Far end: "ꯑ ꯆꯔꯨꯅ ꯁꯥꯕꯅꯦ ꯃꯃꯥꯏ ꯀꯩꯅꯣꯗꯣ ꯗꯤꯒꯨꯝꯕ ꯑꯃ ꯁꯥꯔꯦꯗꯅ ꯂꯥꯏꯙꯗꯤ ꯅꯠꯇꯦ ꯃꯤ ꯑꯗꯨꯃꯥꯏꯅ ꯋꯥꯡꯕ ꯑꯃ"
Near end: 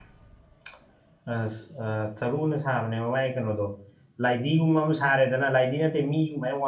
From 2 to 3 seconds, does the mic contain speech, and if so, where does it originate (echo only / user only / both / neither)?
echo only